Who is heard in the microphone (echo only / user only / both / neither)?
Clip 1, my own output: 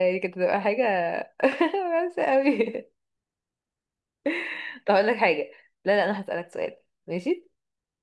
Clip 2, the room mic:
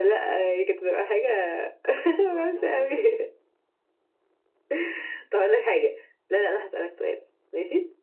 both